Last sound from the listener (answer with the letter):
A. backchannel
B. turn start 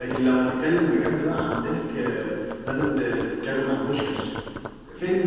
A